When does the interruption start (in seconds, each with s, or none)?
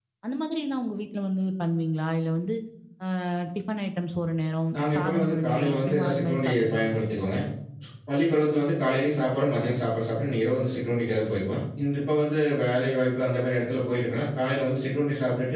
4.7 s